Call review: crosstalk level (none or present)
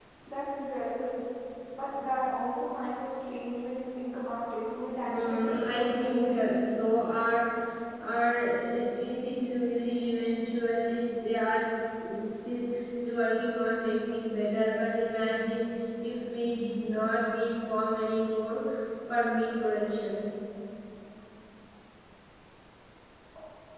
present